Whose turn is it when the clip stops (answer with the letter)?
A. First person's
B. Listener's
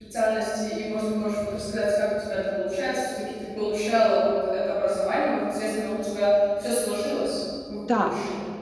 B